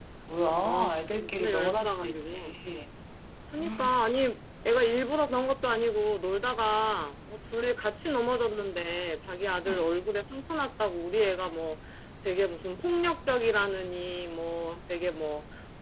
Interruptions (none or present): present